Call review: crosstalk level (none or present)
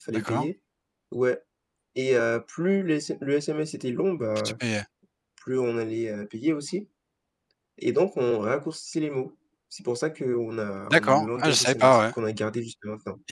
present